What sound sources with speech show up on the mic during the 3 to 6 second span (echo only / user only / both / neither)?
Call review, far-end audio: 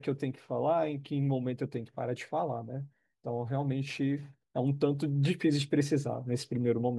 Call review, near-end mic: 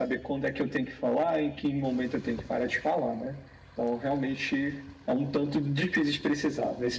echo only